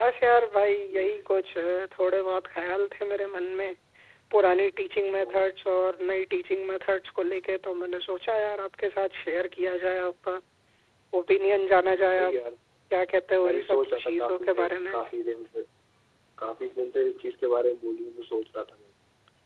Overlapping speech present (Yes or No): Yes